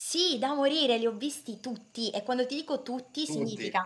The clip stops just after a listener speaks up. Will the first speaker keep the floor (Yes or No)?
Yes